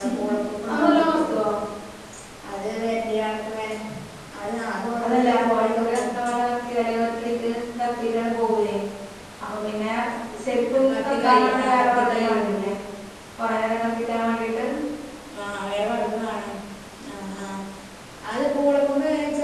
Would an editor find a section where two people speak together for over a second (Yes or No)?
Yes